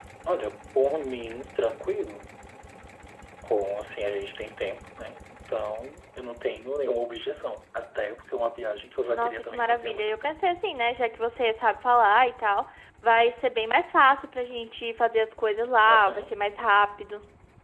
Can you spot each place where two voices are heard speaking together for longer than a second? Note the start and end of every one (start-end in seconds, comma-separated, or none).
9.1-10.4